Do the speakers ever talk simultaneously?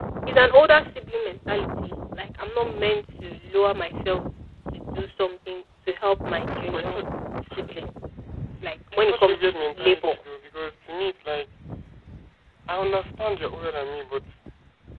Yes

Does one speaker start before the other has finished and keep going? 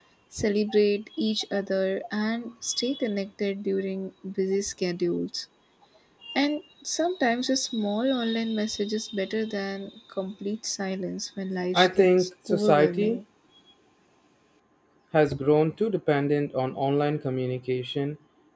Yes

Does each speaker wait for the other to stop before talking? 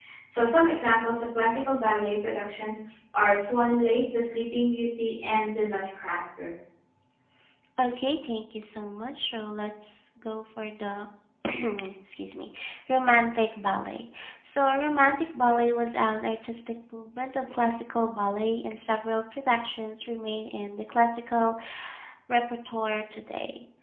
Yes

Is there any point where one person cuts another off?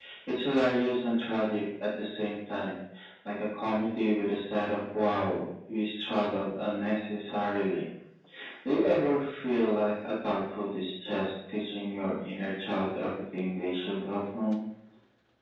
No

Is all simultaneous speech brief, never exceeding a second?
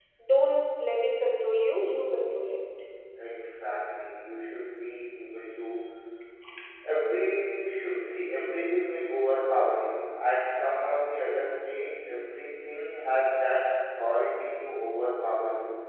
Yes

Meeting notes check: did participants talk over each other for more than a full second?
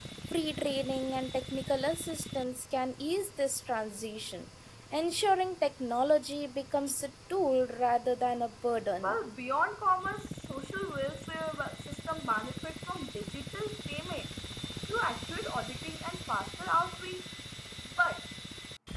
No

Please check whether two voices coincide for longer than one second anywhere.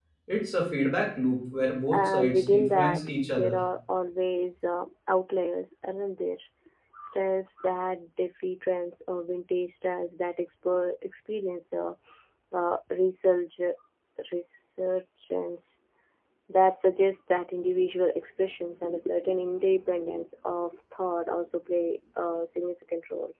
Yes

